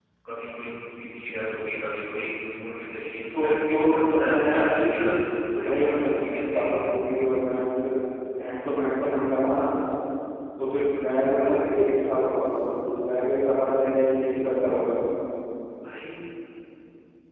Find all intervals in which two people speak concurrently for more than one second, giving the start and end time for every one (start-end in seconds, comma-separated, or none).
3.3-5.1, 5.5-7.0